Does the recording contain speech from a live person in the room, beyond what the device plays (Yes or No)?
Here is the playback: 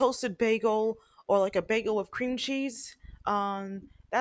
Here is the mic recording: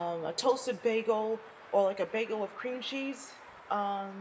No